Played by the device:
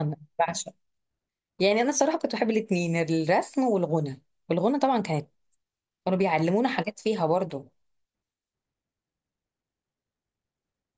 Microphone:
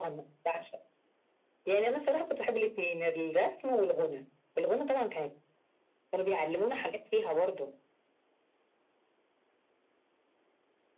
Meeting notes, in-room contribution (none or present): none